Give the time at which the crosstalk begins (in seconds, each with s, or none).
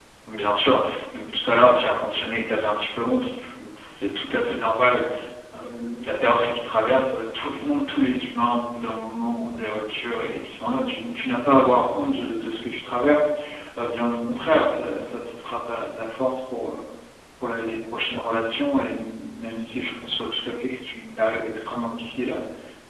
none